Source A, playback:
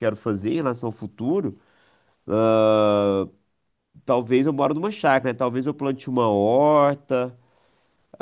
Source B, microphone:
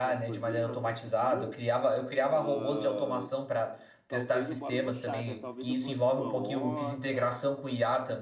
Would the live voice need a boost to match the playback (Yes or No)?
No